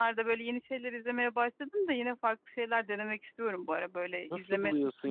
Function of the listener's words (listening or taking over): taking over